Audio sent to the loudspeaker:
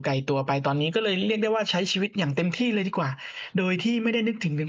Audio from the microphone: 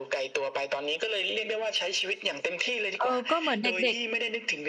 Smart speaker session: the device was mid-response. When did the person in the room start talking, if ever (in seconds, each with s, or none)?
3.0 s